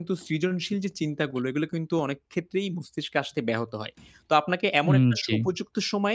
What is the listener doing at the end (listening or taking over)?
listening